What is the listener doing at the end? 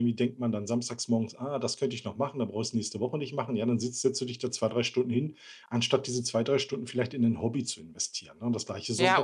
taking over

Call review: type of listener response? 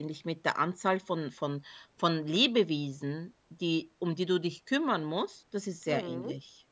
taking over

